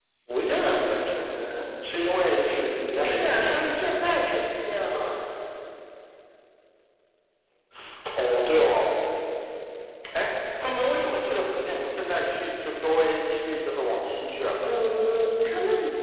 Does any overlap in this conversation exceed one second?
Yes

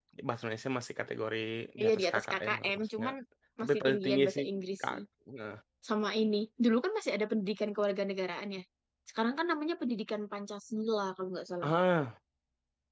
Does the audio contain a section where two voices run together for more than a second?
Yes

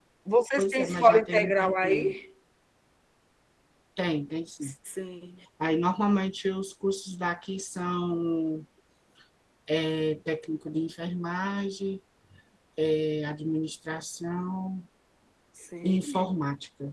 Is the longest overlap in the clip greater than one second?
Yes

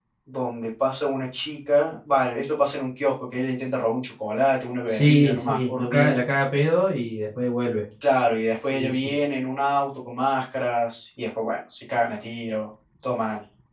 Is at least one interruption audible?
Yes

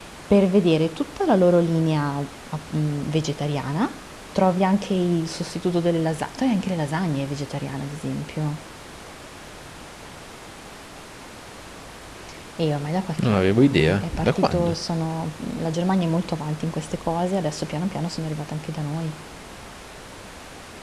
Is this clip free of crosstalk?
No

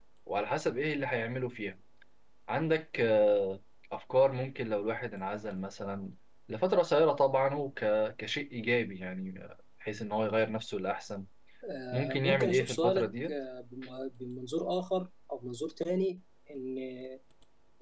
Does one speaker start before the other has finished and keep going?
Yes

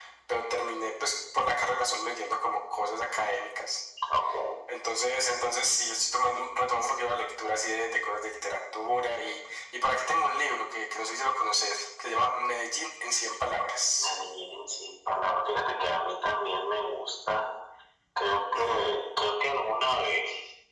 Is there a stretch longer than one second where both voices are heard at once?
No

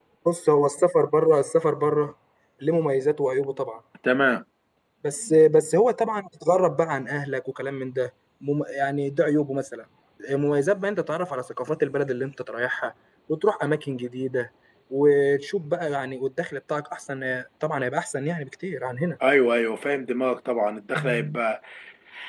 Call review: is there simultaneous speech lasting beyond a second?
No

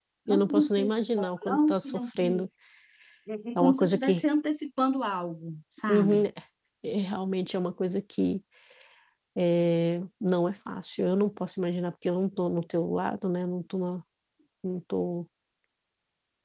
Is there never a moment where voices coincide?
No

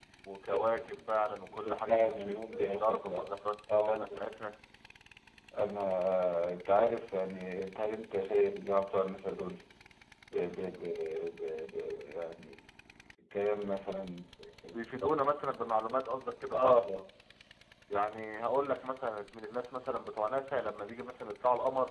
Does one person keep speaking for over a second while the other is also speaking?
Yes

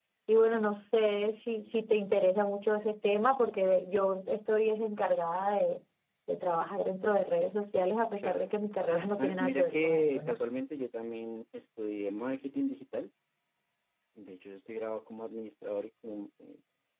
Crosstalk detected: Yes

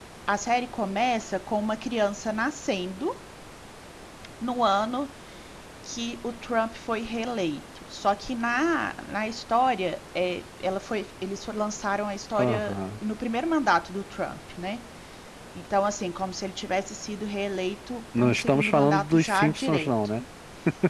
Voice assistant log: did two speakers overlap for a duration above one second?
Yes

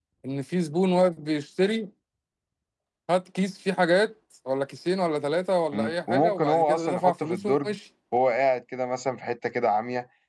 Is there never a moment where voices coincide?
No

